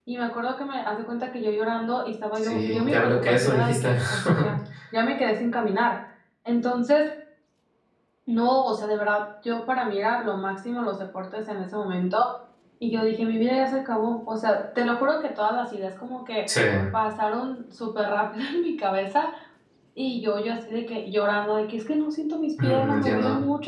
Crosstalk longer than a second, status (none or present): present